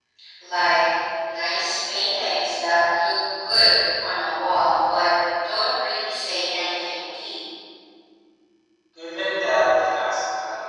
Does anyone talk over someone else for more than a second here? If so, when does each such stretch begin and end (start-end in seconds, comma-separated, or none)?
none